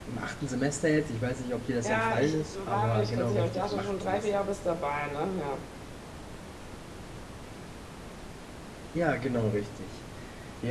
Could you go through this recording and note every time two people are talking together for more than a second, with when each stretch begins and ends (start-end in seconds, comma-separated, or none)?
1.8-4.6